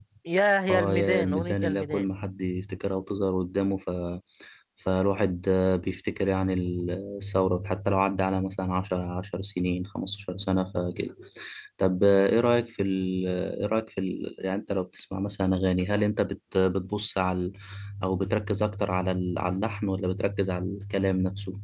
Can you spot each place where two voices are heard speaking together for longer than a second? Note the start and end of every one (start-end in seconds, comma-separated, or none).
0.7-2.0